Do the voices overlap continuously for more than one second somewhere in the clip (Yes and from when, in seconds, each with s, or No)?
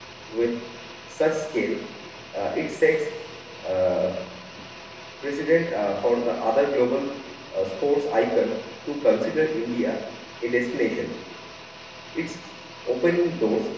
No